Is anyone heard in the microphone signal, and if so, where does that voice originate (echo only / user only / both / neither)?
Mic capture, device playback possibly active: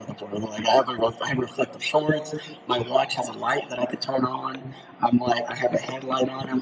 echo only